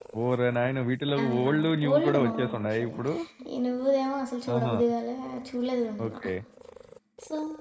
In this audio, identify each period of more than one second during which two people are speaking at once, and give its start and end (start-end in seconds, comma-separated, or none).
1.2-3.0